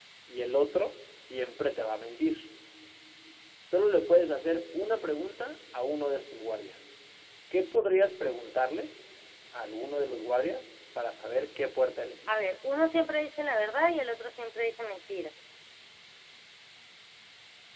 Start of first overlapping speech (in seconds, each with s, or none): none